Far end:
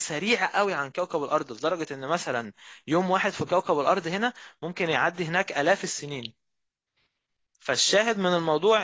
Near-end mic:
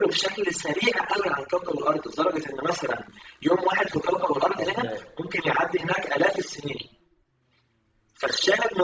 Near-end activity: present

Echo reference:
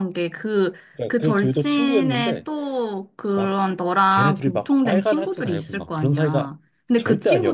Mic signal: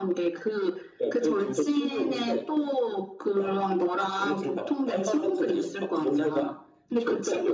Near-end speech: none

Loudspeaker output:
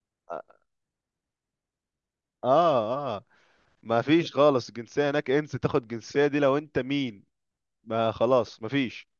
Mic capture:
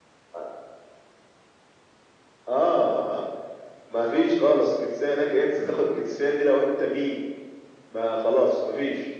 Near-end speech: present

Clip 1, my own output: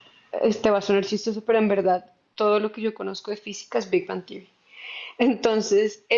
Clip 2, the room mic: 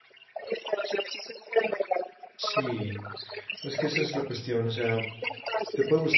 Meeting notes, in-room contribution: present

